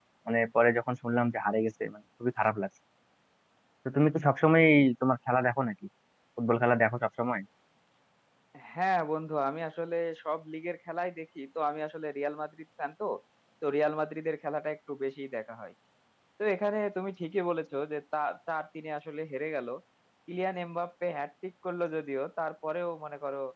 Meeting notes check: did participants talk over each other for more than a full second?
No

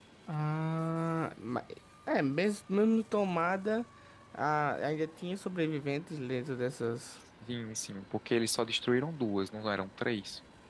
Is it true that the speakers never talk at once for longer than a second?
Yes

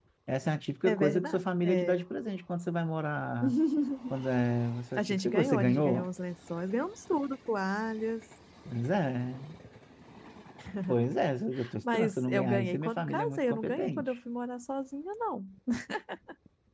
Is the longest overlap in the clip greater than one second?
Yes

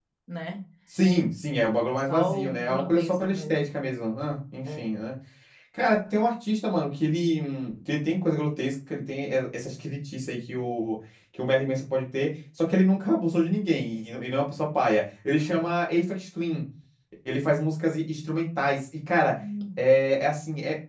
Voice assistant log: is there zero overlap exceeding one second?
No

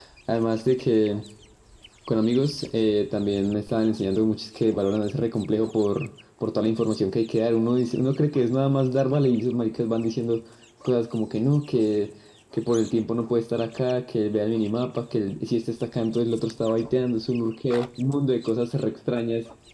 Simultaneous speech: No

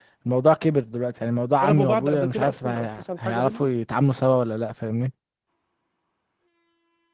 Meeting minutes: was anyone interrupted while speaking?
Yes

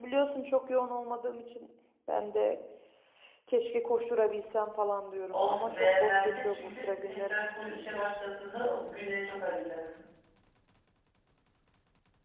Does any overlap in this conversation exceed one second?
Yes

